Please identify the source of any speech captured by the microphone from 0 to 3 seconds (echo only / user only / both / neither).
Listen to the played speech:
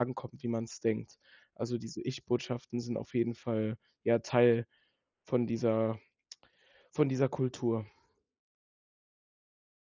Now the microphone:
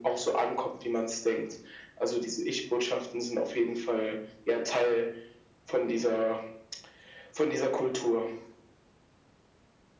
echo only